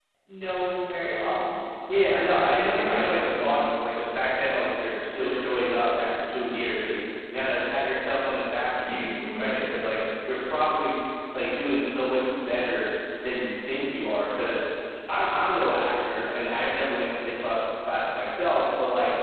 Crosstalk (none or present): present